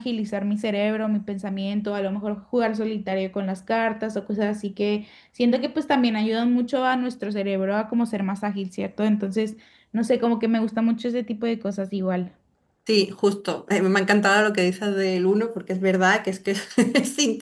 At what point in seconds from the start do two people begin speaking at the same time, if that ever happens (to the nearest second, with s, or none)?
none